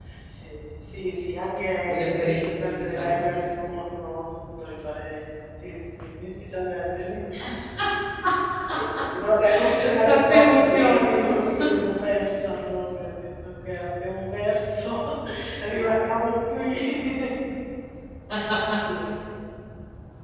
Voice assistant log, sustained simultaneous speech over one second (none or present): present